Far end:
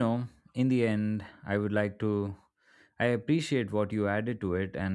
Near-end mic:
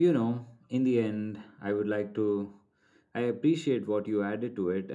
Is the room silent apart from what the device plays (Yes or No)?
Yes